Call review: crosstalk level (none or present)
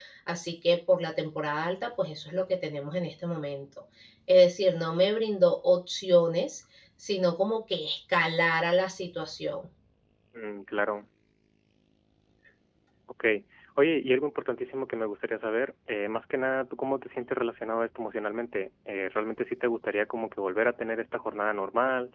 none